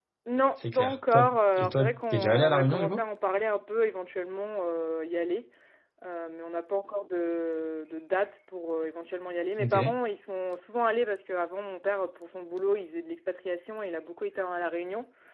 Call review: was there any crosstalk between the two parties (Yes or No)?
Yes